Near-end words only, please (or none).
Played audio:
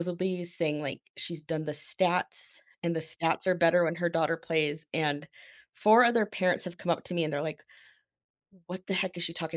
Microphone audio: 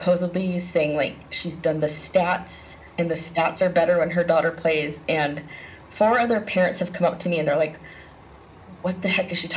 none